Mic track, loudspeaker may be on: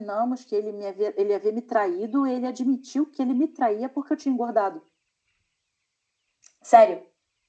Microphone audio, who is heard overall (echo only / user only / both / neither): echo only